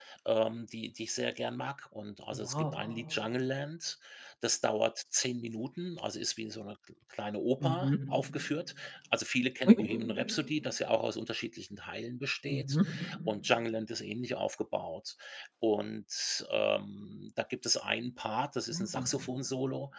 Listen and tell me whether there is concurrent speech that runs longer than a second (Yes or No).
No